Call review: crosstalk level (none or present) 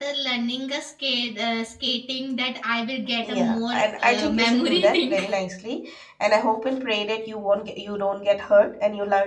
present